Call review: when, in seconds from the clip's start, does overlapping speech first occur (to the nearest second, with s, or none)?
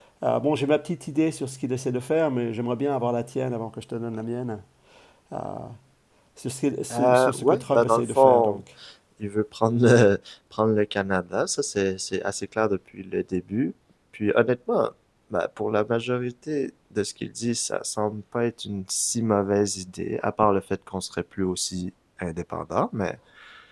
7 s